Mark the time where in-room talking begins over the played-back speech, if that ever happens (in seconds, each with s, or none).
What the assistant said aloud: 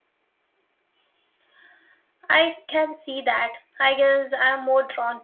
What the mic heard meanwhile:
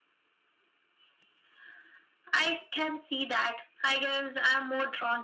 none